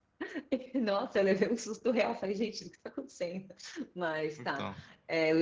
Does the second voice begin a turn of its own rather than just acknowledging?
No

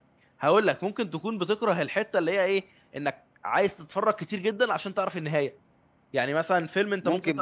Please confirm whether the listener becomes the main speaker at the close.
Yes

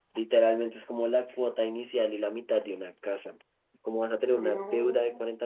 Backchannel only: Yes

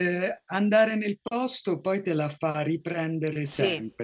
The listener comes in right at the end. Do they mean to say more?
Yes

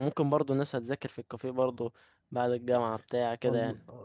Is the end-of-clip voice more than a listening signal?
Yes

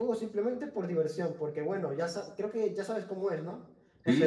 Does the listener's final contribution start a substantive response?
No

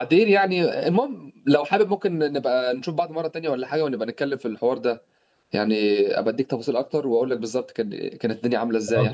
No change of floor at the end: No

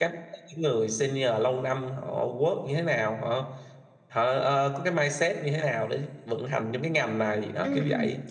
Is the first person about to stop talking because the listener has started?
Yes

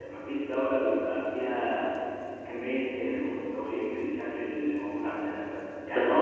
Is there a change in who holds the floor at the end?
No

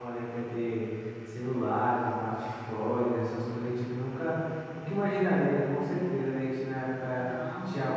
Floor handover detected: No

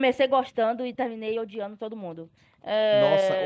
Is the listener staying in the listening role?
No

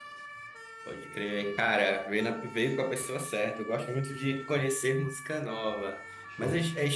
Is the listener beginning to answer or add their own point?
No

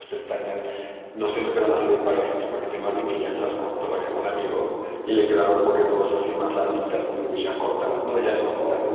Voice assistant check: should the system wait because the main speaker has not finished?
No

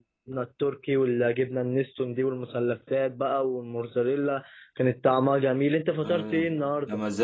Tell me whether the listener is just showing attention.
No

